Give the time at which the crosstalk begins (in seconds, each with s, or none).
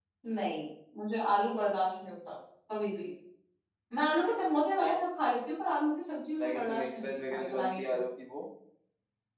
6.4 s